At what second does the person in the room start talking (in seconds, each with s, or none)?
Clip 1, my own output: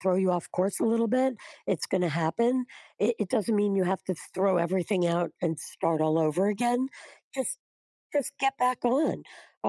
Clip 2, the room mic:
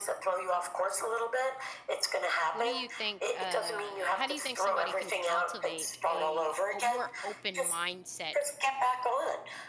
2.5 s